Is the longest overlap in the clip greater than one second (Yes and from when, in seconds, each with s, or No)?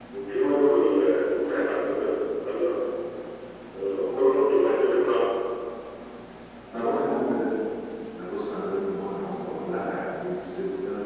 No